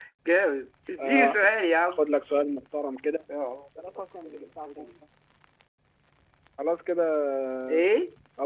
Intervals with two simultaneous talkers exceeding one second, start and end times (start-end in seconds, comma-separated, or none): none